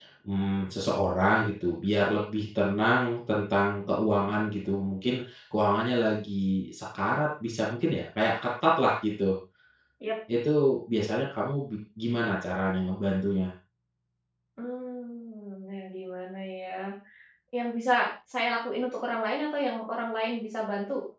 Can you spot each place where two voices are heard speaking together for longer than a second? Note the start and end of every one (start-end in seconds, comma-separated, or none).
none